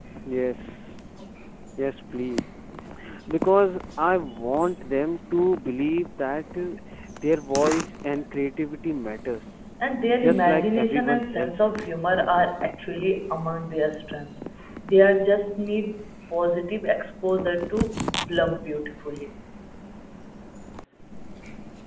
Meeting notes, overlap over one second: present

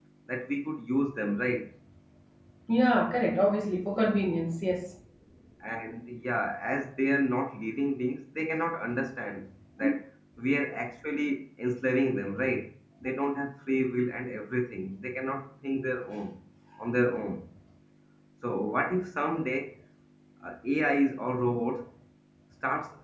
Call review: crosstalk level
none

